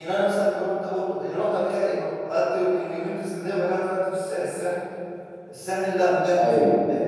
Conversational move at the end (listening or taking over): listening